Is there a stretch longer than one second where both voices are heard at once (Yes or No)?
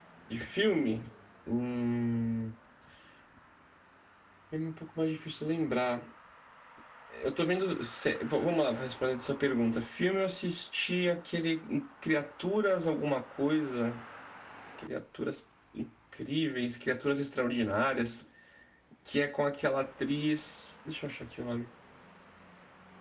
No